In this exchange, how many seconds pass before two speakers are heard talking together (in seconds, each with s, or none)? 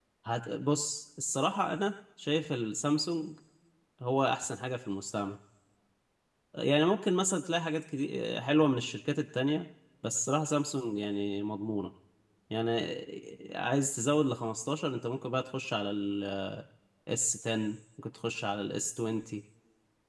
none